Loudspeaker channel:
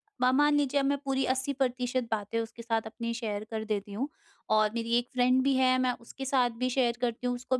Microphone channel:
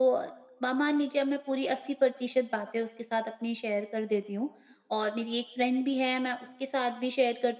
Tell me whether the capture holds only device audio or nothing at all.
Yes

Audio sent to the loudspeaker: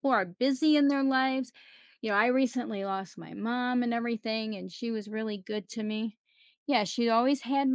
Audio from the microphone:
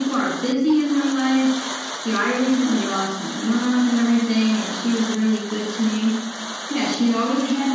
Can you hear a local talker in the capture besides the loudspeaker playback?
No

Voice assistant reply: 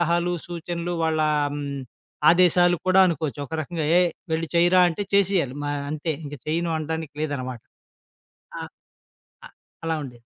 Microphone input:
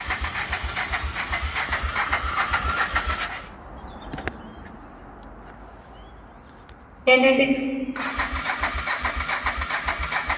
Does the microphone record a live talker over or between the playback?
Yes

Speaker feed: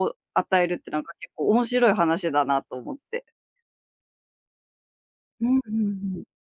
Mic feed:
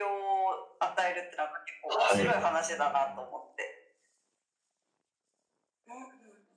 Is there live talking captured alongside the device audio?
Yes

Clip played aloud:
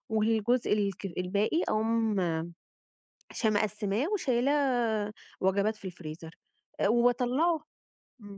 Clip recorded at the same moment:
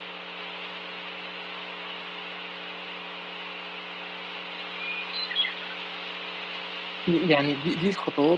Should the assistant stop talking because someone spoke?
Yes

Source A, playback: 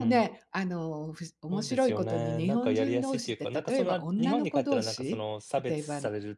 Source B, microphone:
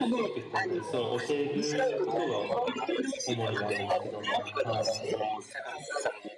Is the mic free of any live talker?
No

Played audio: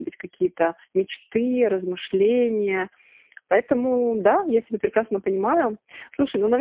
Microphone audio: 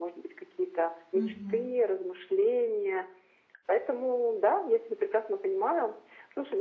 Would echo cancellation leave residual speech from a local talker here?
Yes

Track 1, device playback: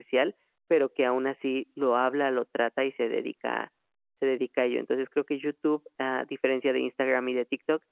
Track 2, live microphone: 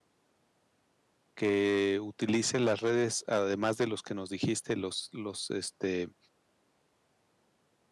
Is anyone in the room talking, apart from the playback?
Yes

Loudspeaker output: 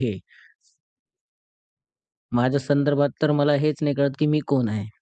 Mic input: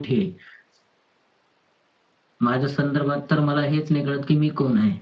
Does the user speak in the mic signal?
No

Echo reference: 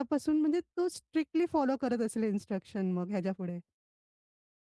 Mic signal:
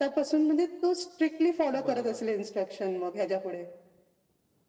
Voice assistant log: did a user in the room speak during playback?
Yes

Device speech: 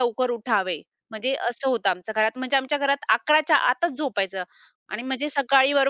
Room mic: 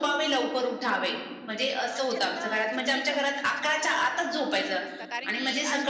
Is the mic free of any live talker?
No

